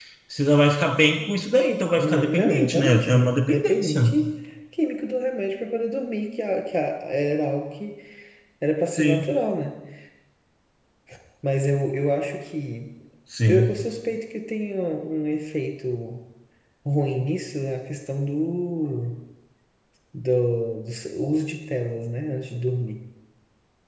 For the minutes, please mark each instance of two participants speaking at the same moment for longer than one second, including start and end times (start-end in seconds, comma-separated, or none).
2.0-4.1